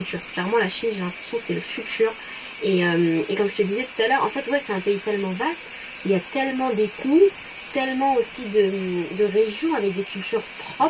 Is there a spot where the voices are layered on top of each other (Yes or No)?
No